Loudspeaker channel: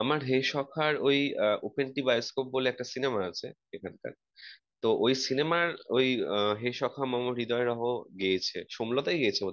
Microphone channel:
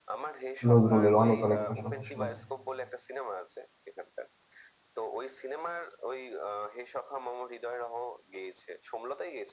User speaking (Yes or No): Yes